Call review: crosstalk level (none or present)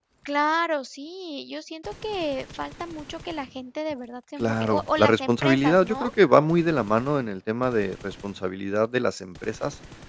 present